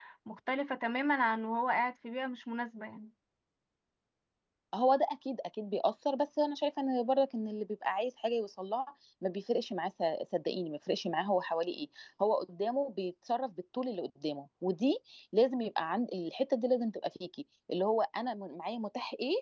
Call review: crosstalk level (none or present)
none